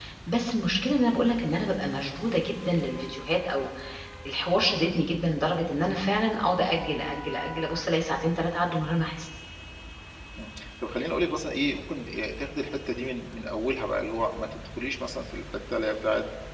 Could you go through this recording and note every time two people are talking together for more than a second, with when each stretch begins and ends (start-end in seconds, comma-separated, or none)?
none